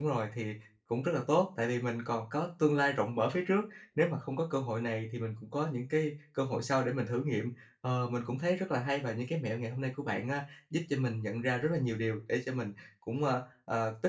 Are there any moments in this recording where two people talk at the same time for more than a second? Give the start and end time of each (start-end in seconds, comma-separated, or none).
none